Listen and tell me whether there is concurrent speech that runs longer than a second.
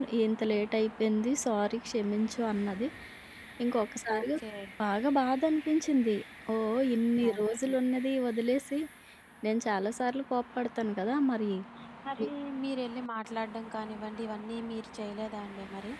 No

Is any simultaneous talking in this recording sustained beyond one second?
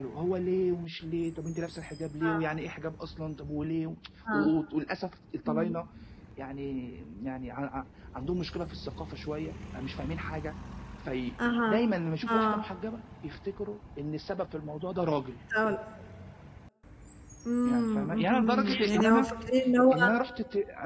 Yes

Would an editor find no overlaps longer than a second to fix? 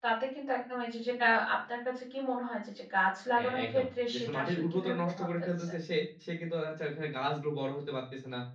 No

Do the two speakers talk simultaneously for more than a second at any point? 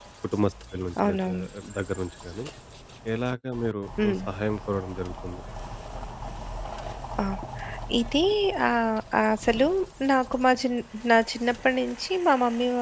No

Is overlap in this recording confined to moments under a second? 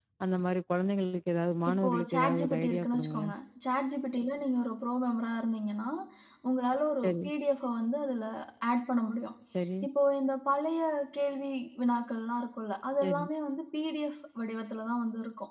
No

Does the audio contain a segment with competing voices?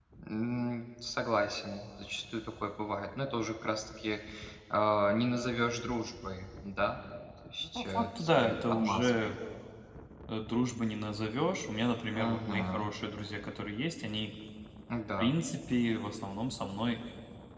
Yes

